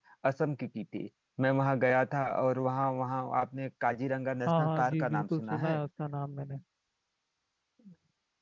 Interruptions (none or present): present